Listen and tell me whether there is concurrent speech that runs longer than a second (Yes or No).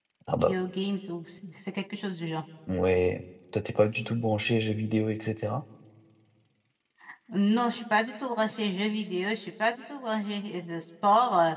No